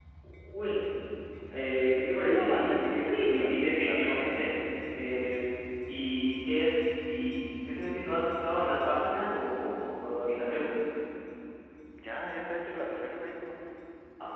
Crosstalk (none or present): present